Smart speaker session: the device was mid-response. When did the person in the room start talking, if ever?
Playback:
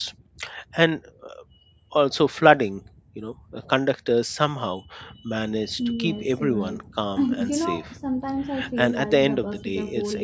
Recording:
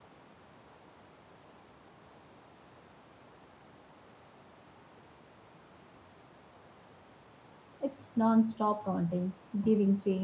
8 s

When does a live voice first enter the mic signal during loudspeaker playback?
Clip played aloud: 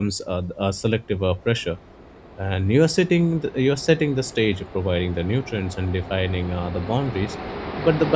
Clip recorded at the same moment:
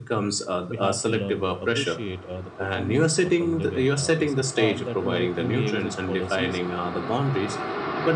1 s

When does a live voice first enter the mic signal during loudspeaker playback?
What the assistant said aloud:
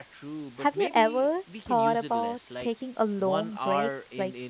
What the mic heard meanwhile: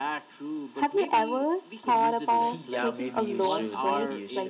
2 s

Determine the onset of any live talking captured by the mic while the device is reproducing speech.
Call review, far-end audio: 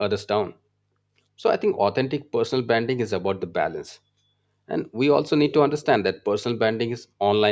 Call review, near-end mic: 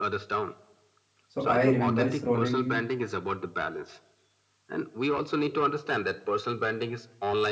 1 s

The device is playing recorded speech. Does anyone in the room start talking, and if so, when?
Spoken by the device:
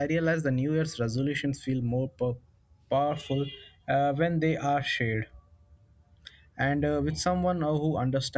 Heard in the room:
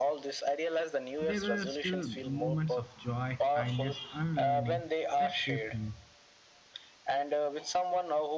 1 s

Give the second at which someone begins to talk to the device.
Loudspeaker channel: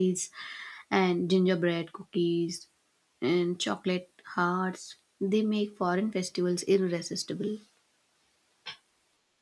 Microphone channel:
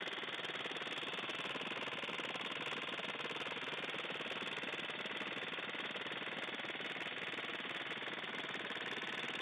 none

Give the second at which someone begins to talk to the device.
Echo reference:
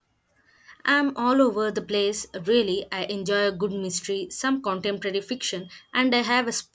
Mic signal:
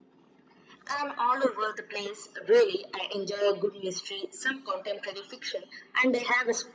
none

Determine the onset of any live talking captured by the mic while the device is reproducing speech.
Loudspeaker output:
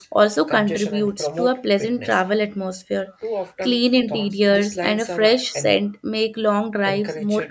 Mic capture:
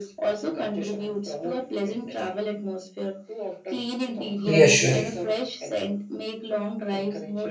4 s

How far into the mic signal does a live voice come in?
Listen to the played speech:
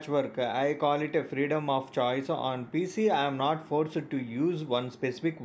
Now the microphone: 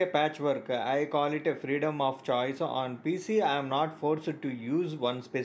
none

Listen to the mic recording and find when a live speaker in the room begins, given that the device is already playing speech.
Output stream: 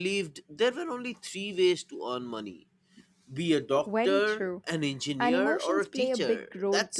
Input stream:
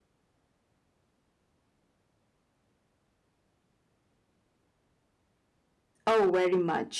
6 s

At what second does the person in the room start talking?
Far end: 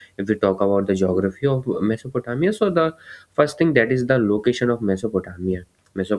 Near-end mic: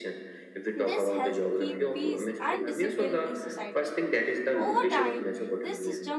1 s

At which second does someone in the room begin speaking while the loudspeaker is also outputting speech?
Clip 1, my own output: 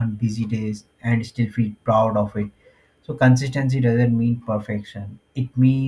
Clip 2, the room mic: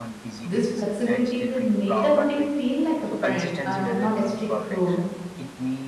0 s

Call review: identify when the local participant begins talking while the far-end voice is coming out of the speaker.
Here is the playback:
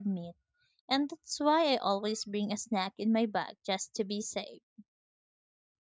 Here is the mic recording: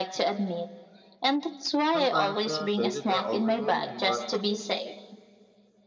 2 s

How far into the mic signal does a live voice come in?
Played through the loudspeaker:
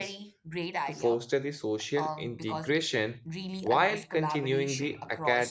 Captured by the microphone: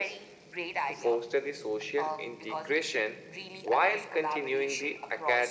none

